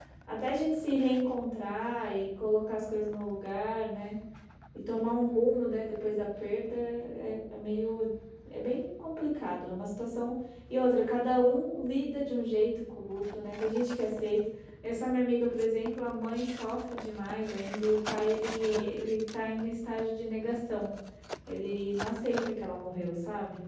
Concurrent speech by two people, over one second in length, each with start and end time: none

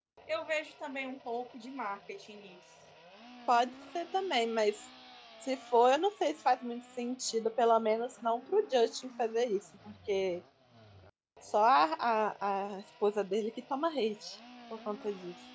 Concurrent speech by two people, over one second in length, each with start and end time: none

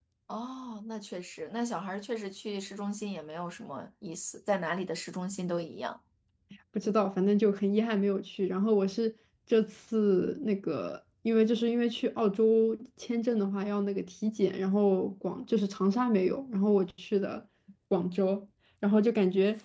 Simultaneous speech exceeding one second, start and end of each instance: none

